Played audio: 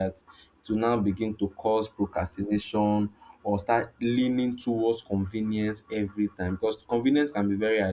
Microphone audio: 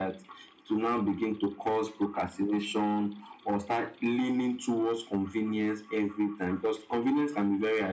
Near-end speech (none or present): none